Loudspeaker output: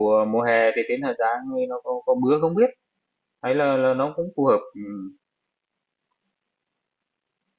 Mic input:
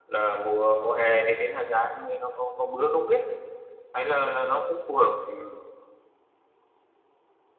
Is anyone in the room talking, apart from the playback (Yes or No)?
No